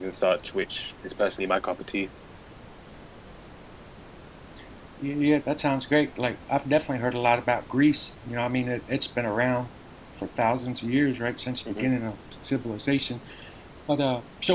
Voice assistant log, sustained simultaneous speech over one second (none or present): none